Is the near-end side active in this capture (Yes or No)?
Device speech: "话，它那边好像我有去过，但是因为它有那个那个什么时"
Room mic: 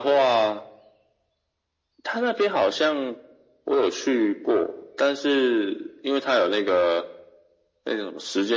No